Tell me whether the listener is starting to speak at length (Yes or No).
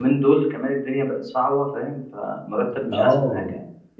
Yes